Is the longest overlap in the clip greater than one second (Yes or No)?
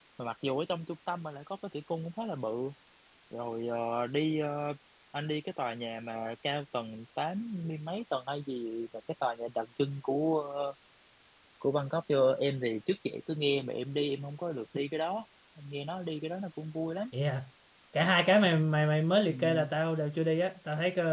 No